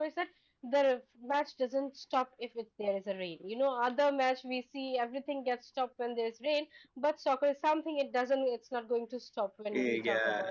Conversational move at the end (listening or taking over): taking over